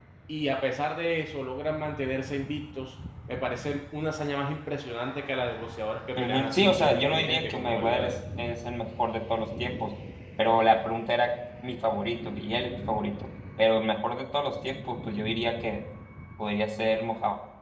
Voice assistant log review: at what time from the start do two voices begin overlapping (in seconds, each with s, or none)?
6.2 s